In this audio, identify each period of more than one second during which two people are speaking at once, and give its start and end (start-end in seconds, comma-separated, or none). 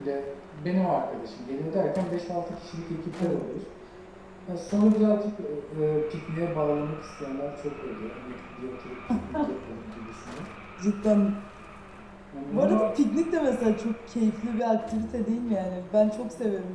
none